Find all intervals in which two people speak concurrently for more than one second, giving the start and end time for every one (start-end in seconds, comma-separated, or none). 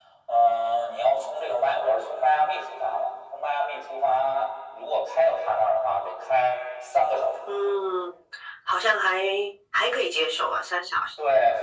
none